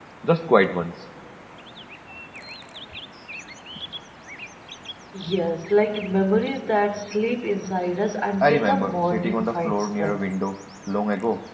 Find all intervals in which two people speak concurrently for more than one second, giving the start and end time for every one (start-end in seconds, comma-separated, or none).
8.4-10.2